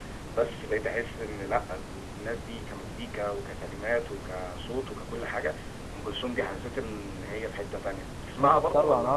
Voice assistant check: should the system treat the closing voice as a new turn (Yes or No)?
Yes